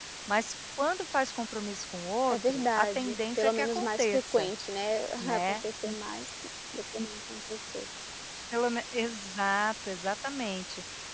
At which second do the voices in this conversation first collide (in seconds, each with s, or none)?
2.3 s